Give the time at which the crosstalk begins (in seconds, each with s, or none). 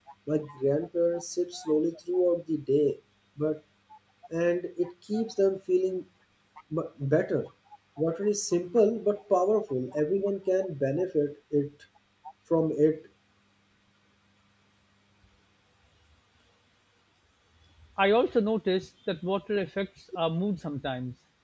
none